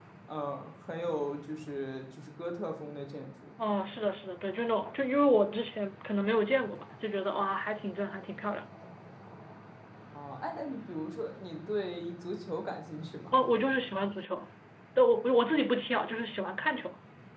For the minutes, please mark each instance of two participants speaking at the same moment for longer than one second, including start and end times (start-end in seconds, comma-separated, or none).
none